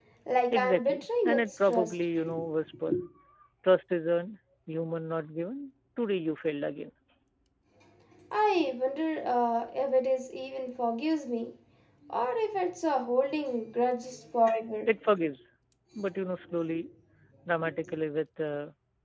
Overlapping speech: Yes, from 0.5 s

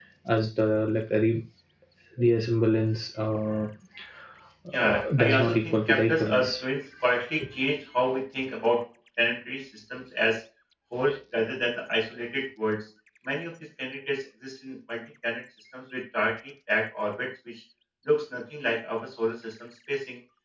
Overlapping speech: Yes, from 4.8 s

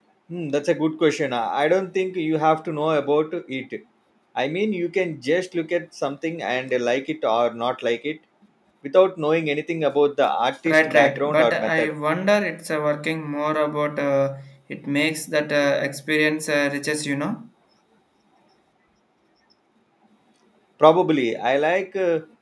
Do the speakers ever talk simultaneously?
Yes, from 10.6 s

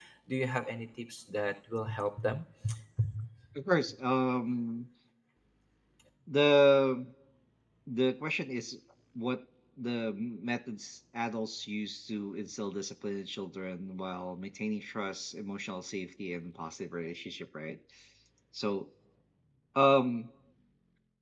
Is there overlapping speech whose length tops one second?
No

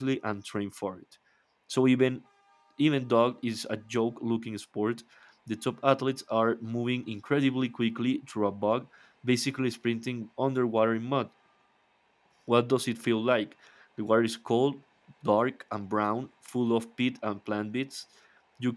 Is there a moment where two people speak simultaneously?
No

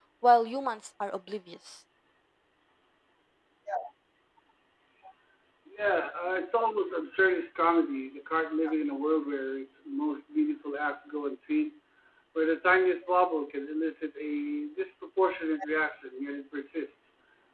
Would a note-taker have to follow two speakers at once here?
No

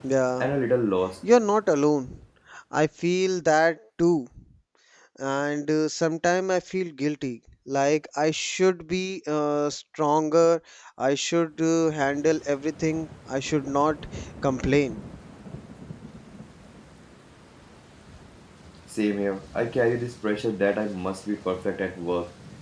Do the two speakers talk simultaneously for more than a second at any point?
No

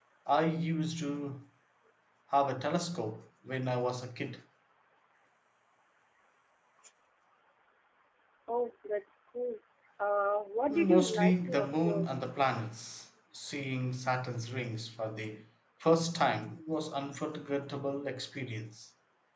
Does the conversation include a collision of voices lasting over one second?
Yes, from 10.7 s

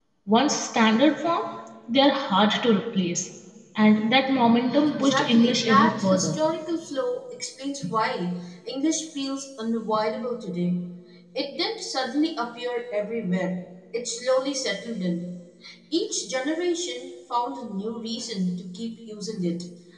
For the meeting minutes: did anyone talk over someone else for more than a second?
Yes, from 4.9 s

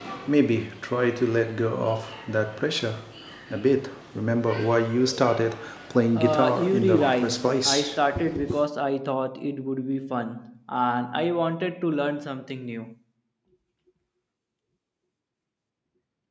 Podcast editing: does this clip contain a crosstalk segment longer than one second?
Yes, from 6.1 s

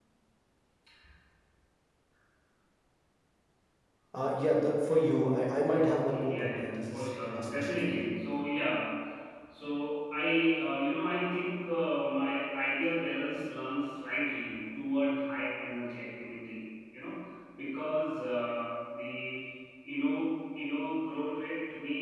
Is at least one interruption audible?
Yes, from 5.7 s

